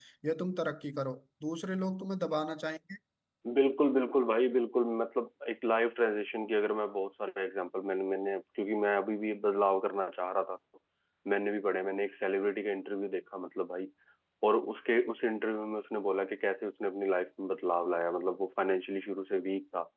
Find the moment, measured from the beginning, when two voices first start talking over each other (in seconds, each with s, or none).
none